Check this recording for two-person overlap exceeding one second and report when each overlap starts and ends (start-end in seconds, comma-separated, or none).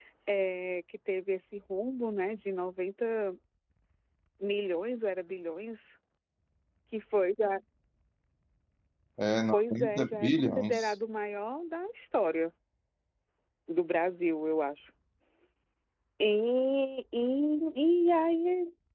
9.5-10.9